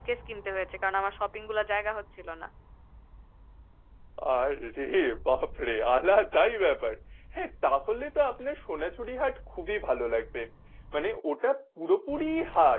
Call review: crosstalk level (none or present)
none